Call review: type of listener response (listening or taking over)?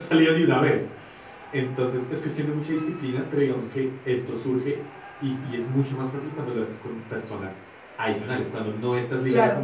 listening